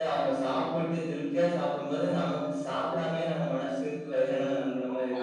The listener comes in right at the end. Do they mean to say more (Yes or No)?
Yes